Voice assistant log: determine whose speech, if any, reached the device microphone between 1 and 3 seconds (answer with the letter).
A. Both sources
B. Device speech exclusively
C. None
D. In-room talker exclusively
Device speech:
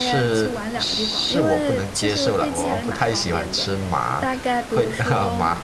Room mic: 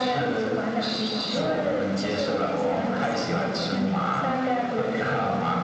A